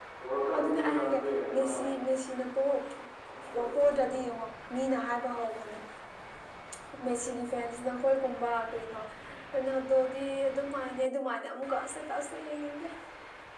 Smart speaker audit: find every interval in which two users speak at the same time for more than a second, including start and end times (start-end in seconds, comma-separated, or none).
0.6-1.8